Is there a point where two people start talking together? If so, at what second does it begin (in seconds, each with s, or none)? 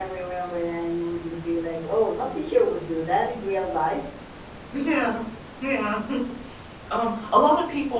none